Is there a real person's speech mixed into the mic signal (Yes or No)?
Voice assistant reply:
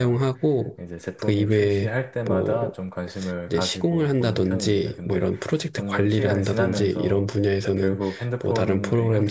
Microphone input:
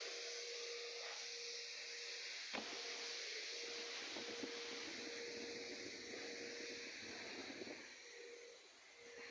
No